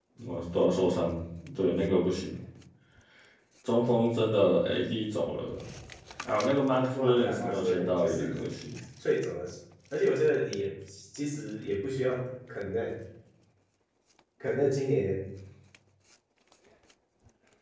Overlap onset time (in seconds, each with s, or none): 6.9 s